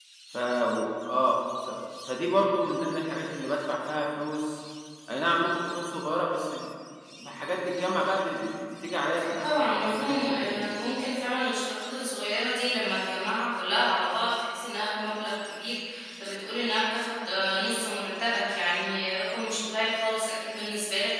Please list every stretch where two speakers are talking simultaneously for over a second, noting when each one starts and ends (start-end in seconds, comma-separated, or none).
9.4-10.7